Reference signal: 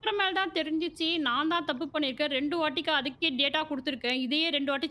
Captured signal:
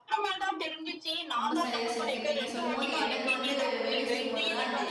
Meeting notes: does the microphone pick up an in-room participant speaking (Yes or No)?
Yes